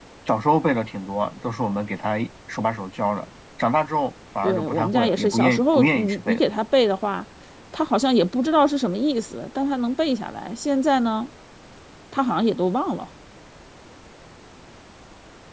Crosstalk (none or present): present